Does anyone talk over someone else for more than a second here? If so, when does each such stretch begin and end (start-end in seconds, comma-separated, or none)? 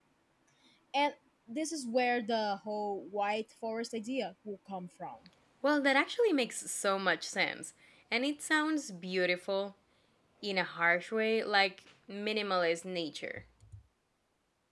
none